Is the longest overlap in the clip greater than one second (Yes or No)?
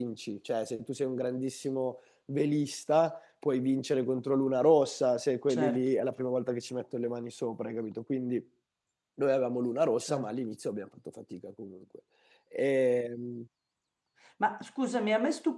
No